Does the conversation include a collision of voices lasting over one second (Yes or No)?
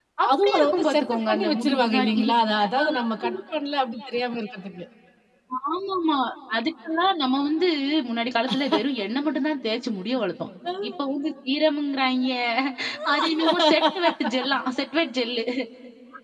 Yes